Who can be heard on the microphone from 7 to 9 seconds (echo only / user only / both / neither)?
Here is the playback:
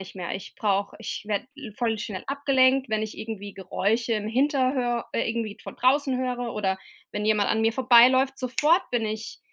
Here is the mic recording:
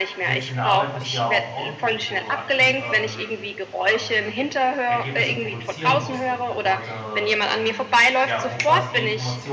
both